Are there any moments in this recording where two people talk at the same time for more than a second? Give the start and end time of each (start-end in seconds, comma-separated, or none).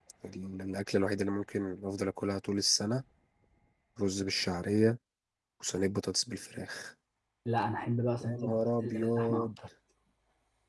8.2-9.6